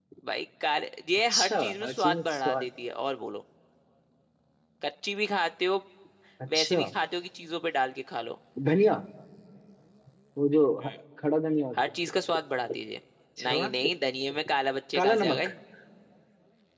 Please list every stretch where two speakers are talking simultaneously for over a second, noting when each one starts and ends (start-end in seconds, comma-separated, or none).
1.3-2.7